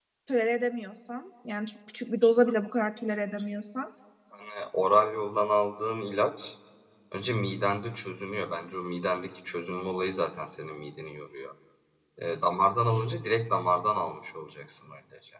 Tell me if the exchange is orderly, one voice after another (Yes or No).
Yes